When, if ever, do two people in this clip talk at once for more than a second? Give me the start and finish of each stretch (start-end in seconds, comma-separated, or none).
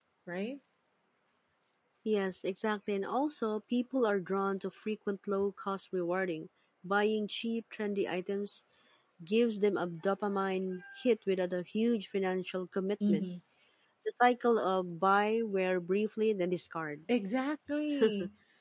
none